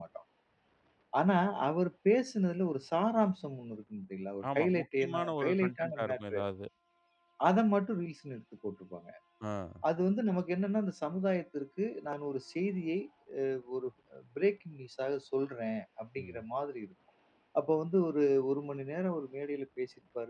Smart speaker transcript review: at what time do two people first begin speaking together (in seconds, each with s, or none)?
4.6 s